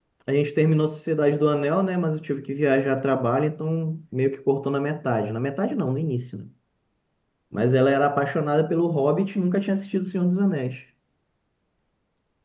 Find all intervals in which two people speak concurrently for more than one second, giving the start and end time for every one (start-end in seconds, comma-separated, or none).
none